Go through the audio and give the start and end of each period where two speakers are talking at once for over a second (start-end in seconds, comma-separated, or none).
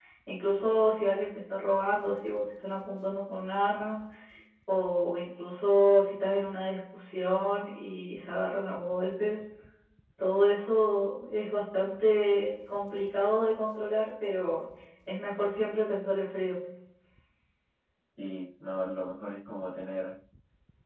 none